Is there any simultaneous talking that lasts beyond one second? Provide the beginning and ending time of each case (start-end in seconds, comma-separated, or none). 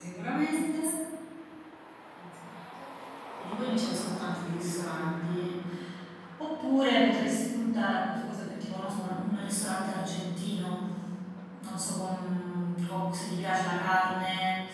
none